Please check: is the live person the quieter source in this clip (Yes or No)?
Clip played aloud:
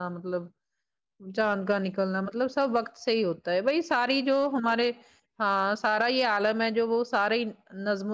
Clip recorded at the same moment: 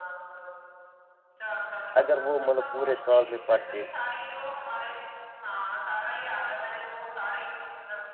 No